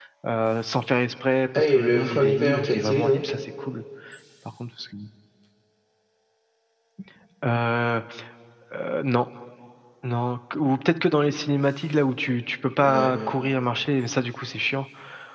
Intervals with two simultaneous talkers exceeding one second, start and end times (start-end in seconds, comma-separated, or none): 1.6-3.2